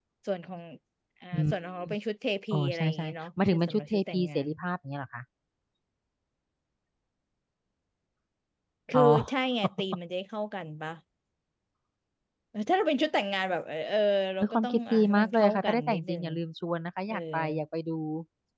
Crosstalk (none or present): present